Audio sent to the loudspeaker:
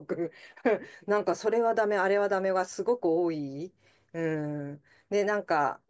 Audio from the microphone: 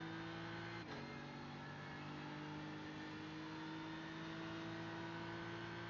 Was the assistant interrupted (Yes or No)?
No